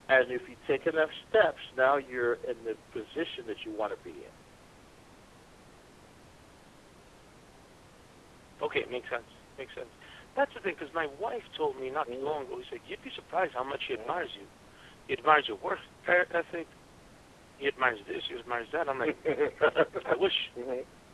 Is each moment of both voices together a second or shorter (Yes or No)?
Yes